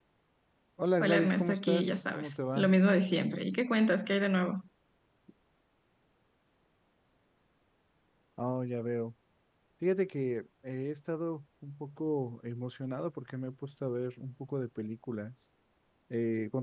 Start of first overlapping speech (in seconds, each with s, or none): 1.0 s